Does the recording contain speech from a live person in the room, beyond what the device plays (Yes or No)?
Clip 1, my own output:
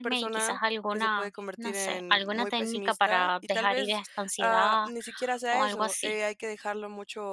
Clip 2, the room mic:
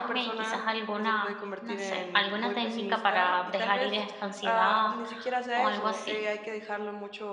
No